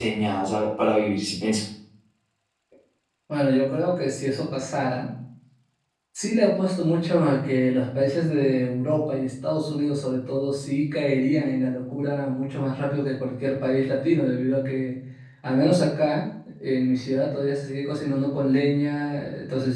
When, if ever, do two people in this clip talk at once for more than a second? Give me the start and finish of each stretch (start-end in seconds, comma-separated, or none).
none